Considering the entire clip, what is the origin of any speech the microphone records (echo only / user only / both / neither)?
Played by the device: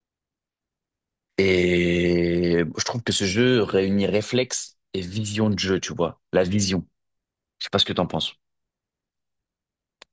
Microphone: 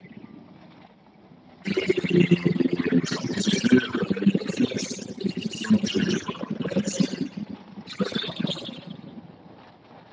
echo only